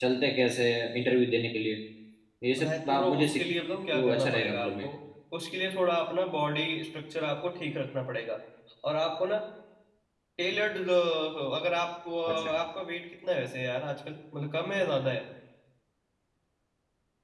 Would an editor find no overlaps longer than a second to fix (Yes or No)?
No